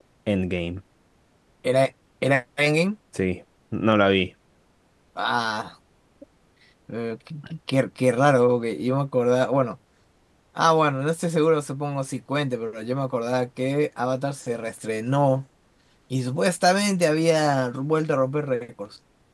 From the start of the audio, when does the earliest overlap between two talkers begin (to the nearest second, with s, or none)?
none